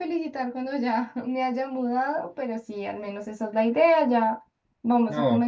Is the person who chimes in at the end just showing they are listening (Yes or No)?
Yes